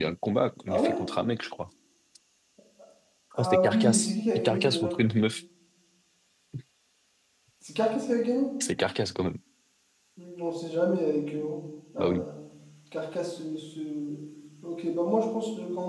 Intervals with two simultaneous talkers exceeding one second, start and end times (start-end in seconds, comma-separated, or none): 3.4-5.0